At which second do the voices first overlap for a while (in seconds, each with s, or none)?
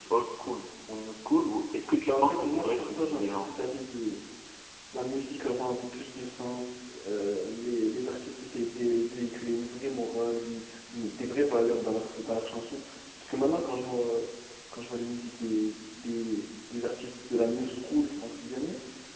2.0 s